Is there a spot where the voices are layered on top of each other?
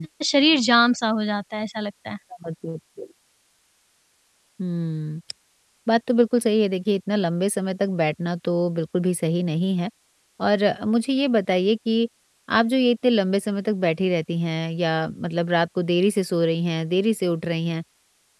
No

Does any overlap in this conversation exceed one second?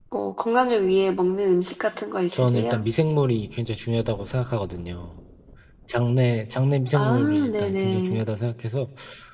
Yes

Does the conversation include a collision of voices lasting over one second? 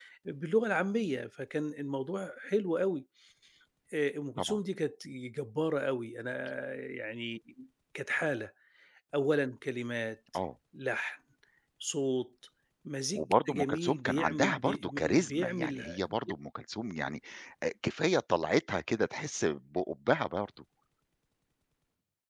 Yes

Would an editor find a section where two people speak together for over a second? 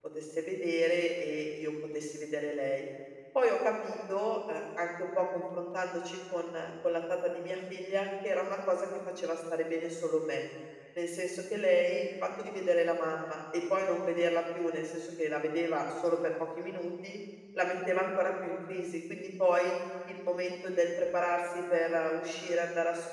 No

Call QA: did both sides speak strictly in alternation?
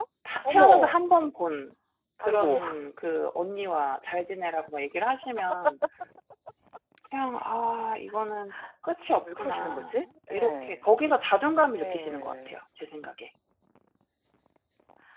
No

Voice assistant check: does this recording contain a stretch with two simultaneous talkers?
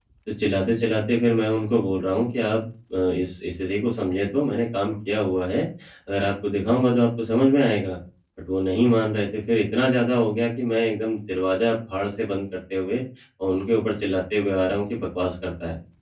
No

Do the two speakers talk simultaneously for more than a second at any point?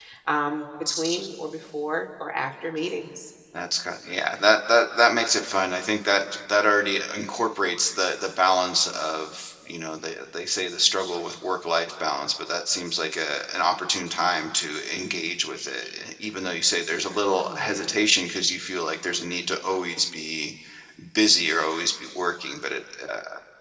No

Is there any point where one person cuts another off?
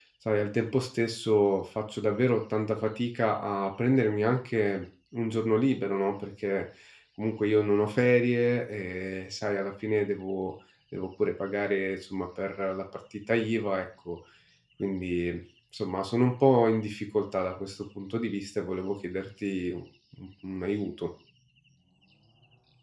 No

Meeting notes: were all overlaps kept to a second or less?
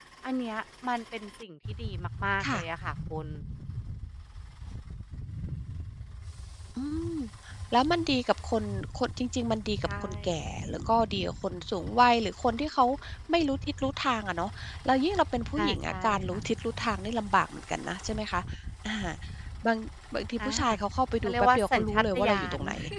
No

